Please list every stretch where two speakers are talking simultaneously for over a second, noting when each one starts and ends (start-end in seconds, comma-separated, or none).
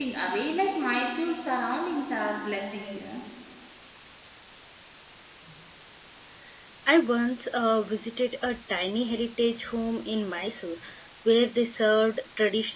none